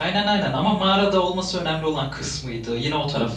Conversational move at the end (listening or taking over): taking over